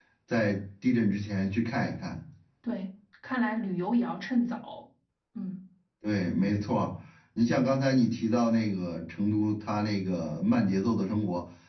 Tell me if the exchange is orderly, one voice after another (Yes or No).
Yes